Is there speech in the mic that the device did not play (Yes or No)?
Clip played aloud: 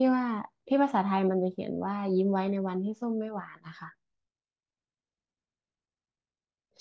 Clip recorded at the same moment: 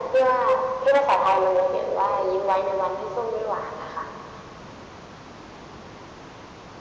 No